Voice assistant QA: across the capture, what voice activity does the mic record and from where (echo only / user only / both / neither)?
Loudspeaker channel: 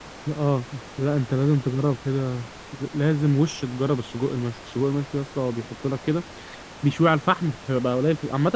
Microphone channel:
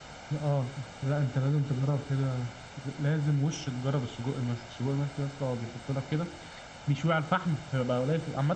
echo only